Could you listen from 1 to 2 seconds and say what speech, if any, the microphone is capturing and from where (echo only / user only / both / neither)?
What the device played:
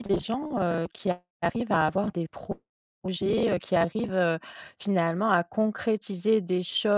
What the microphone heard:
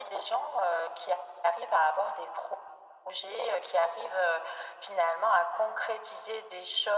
echo only